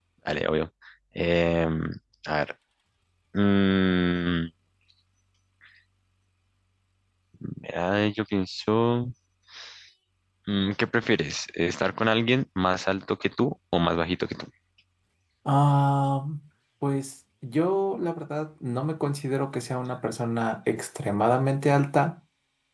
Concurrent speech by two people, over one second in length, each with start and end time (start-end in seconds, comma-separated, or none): none